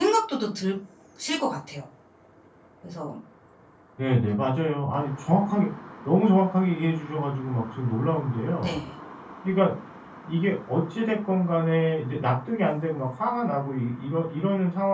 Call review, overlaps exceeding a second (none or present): none